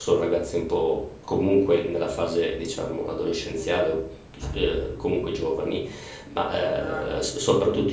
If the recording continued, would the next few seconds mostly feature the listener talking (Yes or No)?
No